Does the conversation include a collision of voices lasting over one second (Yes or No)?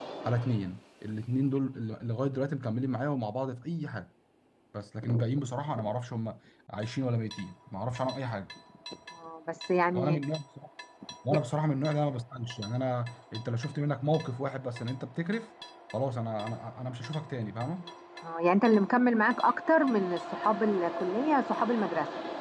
No